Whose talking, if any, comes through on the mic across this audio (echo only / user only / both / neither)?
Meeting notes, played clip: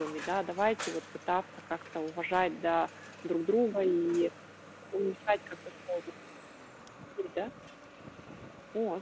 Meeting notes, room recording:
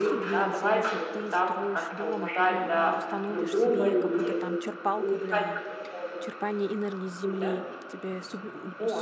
both